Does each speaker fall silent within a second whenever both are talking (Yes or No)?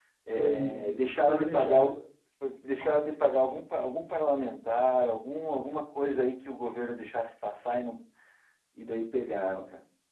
No